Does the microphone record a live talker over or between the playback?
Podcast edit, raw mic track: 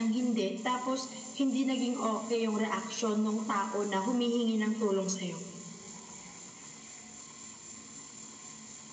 No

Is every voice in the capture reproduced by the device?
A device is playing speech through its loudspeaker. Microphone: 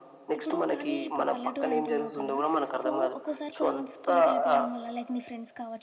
No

